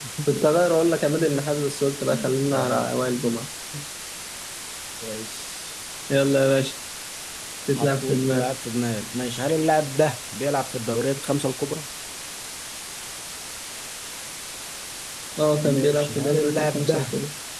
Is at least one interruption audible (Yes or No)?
Yes